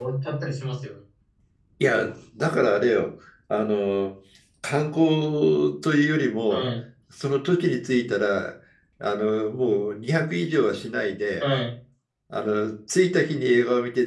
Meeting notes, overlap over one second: none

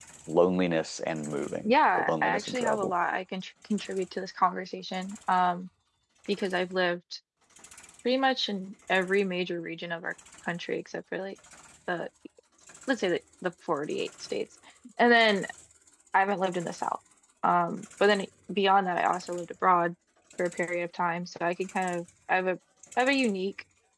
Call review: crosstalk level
present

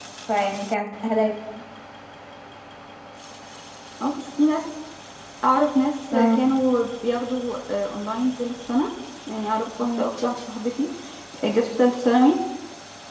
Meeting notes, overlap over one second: none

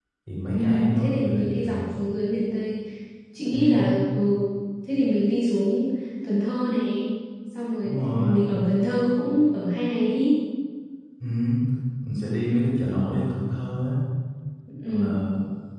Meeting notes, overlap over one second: present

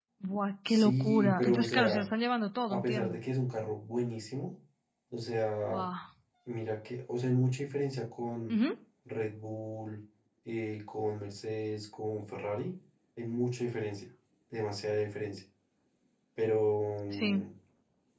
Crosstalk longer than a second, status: present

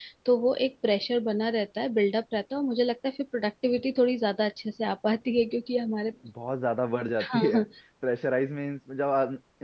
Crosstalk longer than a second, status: none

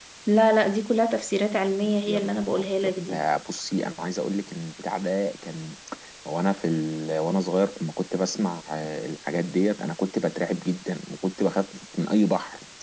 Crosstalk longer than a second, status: present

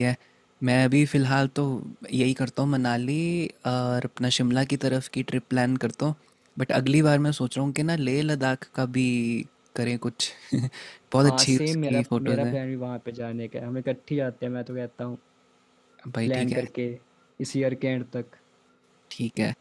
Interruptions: present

